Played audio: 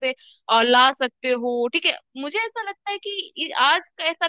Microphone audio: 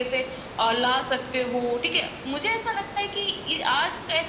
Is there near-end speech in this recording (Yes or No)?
No